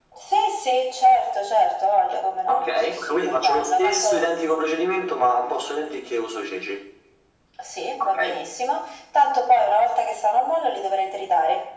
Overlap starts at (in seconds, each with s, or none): 2.5 s